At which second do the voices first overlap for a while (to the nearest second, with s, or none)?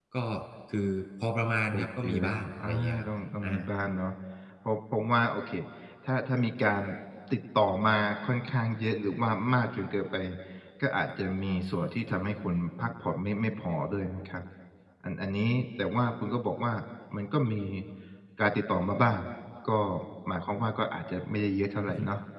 2 s